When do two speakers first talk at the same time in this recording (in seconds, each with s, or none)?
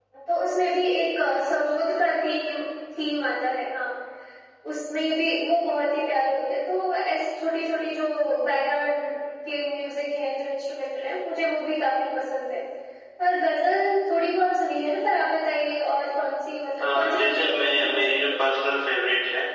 16.8 s